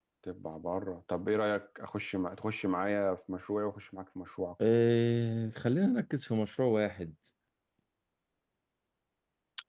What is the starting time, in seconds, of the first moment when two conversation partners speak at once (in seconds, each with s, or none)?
none